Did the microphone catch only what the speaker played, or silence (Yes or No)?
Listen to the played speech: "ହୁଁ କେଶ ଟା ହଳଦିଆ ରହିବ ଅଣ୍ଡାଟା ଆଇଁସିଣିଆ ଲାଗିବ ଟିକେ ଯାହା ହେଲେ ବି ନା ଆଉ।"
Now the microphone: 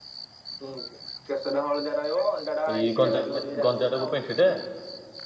No